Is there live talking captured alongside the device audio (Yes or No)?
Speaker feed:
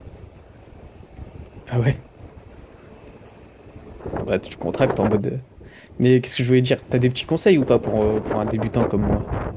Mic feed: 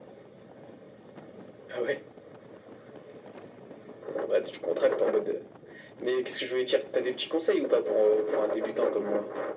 No